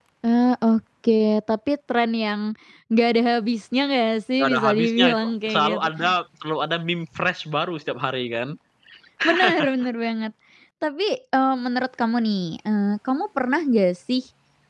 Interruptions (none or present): present